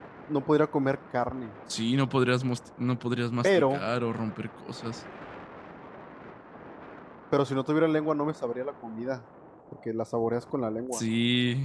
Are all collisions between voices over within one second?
Yes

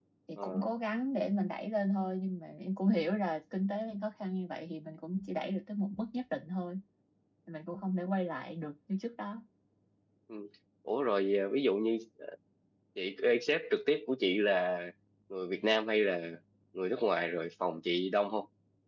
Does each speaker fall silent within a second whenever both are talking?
Yes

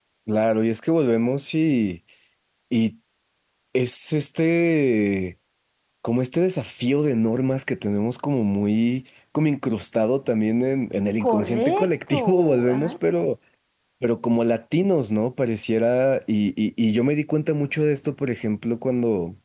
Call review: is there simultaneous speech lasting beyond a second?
Yes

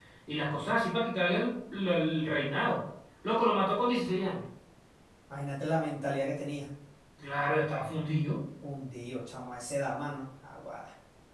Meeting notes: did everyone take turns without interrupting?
Yes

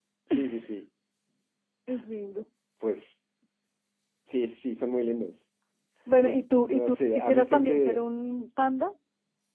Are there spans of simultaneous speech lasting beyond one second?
Yes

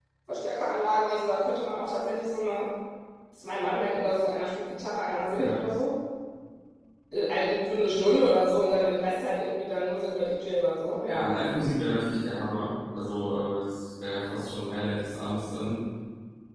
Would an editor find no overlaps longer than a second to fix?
Yes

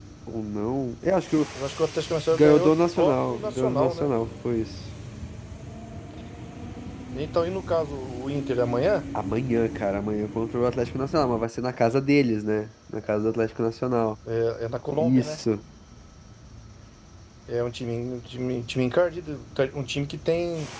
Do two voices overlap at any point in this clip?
Yes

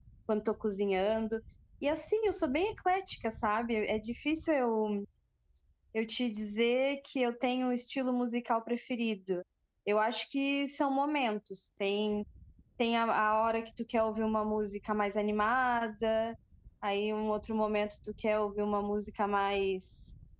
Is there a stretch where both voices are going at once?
No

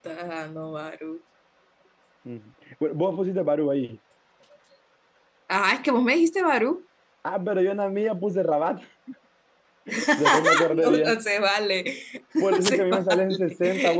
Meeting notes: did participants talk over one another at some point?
Yes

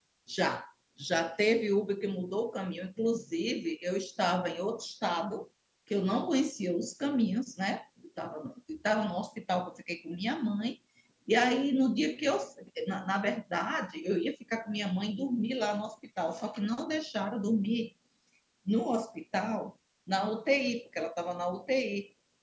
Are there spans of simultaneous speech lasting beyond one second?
No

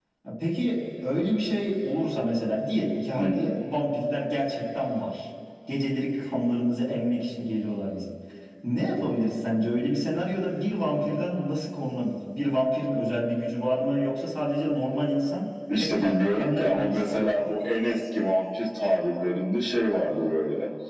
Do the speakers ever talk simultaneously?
Yes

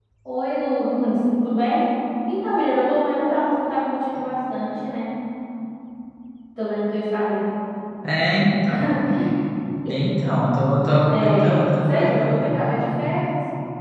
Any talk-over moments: Yes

